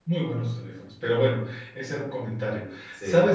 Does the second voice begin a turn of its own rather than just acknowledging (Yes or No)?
No